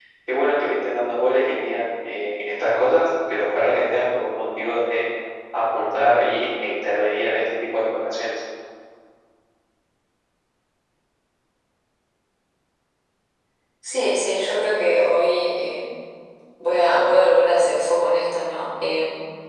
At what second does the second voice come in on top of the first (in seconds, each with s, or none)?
none